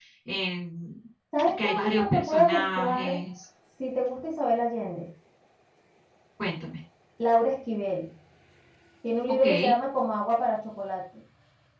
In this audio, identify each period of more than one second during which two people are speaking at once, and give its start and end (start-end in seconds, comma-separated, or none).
1.6-3.2